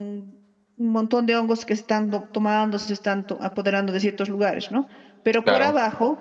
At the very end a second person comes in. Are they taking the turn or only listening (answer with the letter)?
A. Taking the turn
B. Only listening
B